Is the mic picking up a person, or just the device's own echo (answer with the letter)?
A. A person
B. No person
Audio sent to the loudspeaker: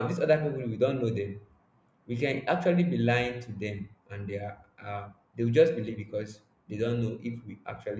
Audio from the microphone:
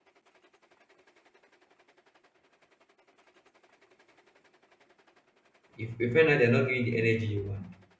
A